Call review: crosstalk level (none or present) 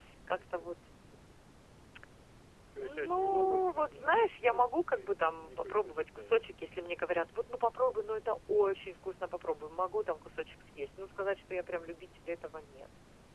present